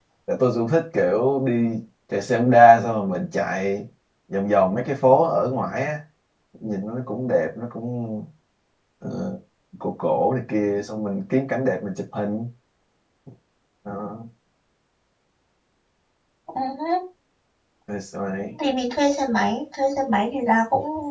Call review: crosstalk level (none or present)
none